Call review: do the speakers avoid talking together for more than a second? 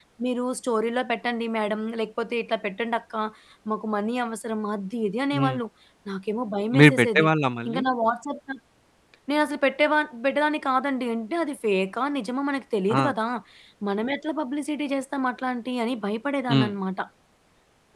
Yes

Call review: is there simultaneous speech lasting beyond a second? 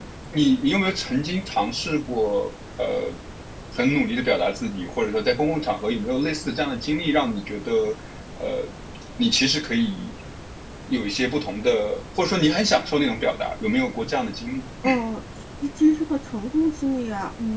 No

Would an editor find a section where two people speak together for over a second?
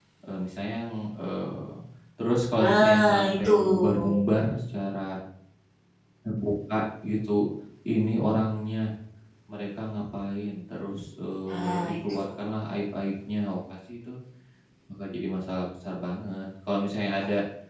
Yes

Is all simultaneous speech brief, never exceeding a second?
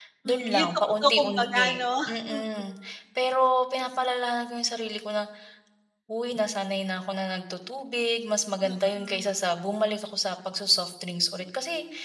No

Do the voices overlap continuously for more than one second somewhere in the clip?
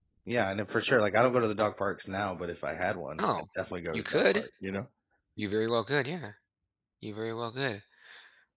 No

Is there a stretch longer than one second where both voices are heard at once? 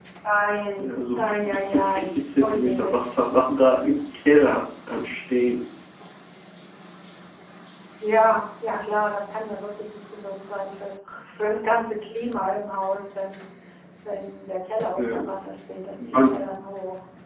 Yes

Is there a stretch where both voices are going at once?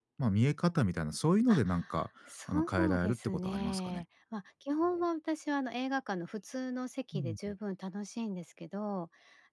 Yes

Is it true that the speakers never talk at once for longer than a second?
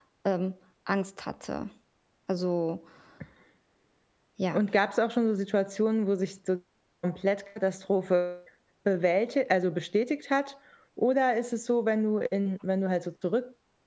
Yes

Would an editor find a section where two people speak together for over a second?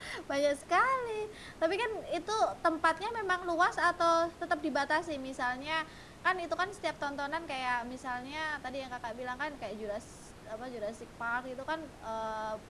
No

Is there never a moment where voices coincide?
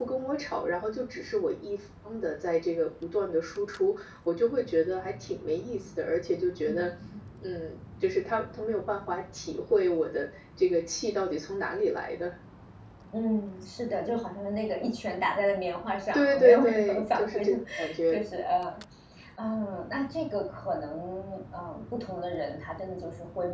No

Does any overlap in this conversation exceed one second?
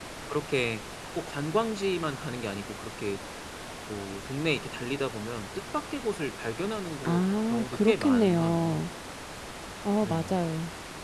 Yes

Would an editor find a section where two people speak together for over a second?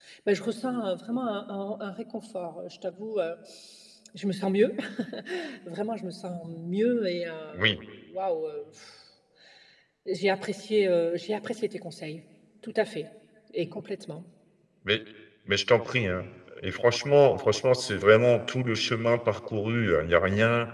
No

